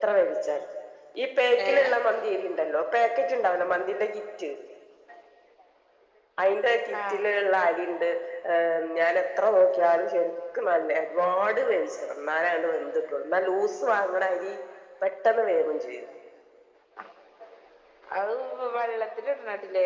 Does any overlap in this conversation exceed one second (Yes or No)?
No